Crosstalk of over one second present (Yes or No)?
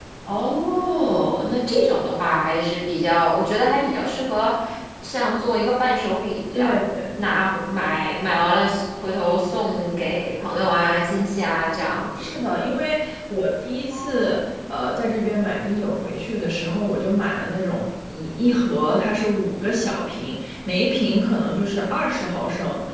No